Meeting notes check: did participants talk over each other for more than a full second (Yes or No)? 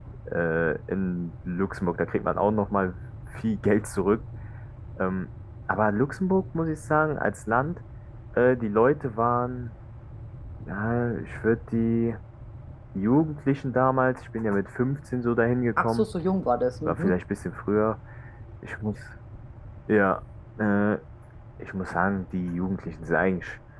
No